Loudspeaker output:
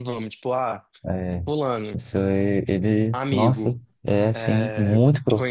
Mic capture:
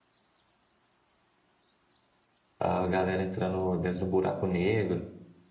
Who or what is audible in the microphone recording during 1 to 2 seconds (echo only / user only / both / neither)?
neither